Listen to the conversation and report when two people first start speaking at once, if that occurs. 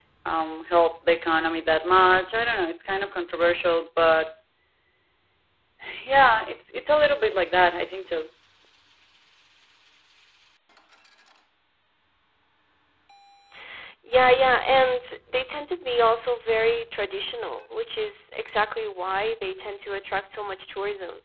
none

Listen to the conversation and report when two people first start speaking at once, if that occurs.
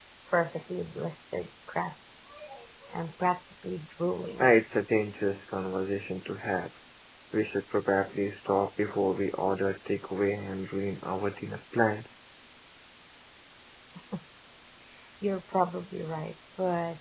none

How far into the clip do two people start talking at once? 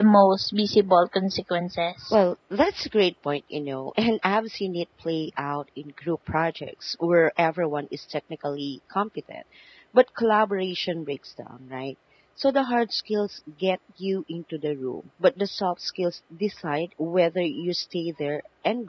none

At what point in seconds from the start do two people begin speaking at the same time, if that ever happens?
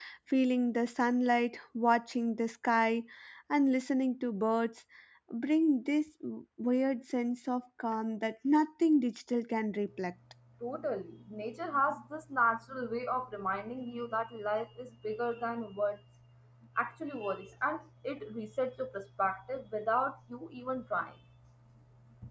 none

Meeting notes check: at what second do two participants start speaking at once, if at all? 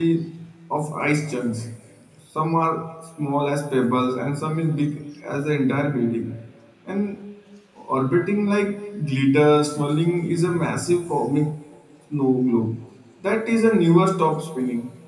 none

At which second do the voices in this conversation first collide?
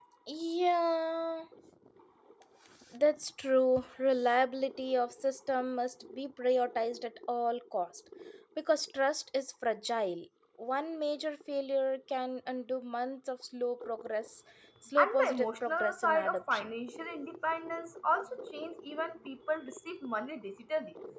15.0 s

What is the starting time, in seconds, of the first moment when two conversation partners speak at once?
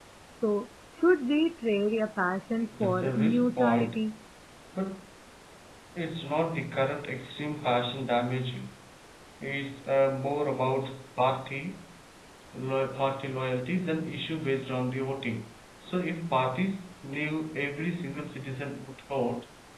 2.6 s

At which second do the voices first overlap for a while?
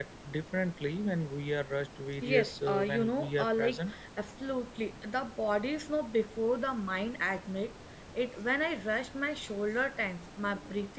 2.2 s

